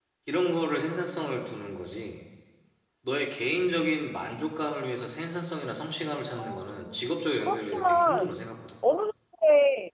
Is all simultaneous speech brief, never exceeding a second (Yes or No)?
No